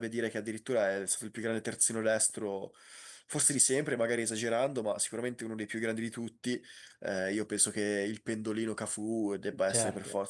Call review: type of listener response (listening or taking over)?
taking over